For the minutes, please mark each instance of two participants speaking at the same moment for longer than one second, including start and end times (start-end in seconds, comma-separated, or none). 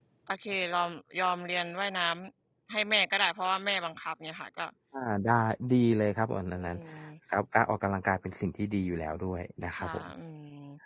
none